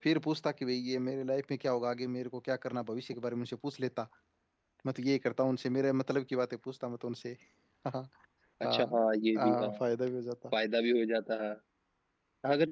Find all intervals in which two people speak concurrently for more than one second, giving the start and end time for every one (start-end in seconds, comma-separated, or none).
none